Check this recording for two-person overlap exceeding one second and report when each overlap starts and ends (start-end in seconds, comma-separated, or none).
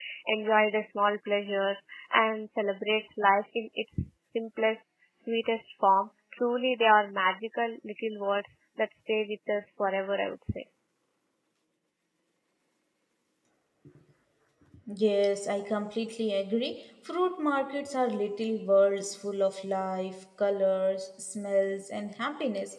none